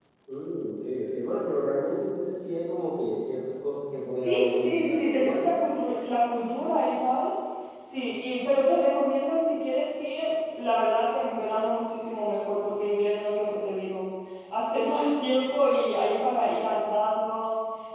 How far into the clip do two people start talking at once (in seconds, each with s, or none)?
4.1 s